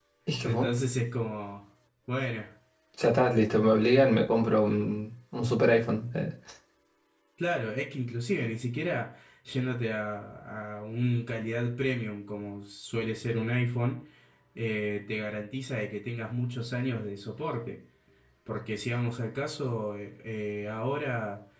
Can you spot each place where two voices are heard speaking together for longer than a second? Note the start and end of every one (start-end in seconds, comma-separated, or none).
none